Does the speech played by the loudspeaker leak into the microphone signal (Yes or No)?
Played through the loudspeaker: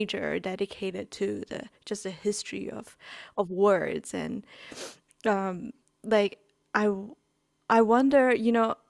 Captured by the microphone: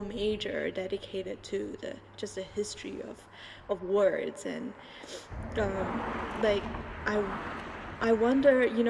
Yes